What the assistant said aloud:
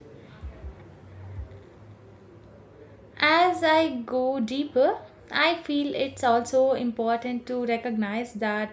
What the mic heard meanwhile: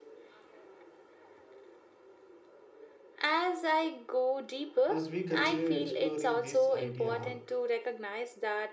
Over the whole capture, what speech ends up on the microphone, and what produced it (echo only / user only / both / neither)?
both